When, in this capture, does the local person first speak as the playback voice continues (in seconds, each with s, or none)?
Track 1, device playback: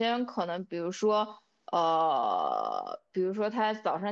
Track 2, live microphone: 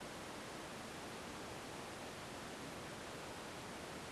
none